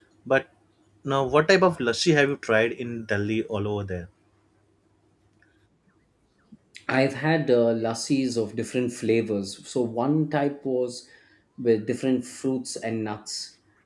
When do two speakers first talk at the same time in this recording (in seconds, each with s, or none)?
none